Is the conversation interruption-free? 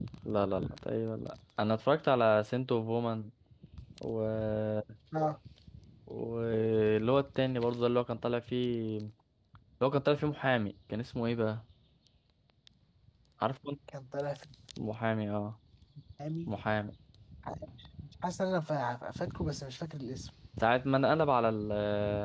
Yes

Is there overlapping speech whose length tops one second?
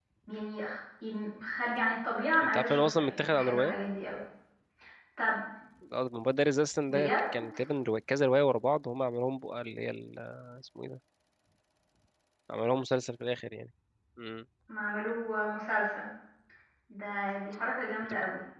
Yes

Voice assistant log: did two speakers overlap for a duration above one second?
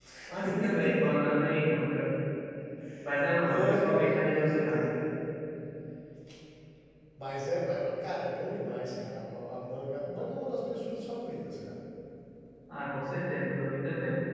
Yes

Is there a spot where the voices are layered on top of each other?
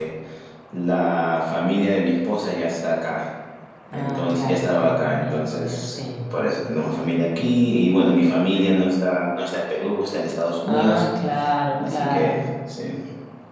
Yes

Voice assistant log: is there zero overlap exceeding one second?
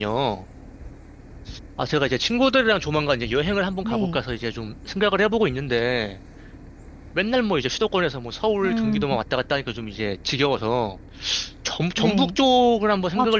Yes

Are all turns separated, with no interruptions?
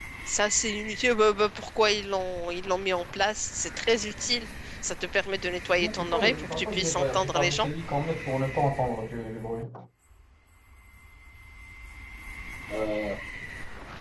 No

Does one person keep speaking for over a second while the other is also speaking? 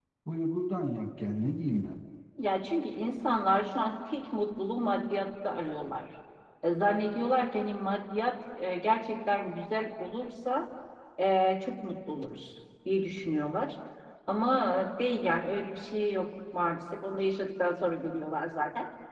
No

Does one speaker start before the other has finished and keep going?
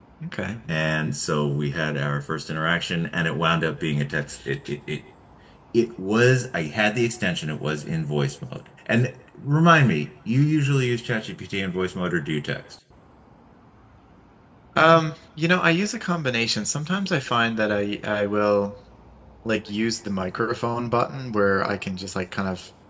No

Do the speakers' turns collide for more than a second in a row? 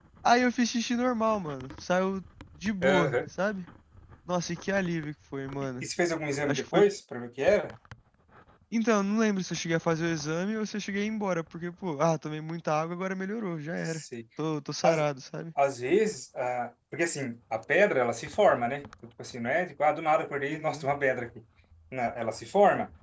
No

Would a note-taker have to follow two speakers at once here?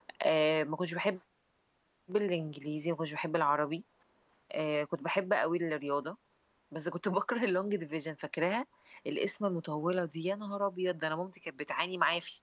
No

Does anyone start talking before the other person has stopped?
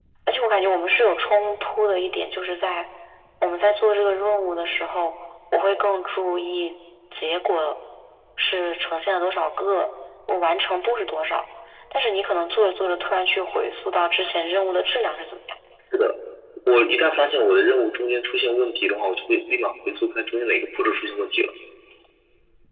No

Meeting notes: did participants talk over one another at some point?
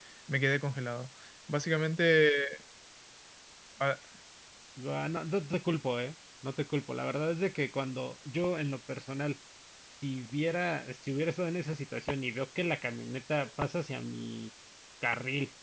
No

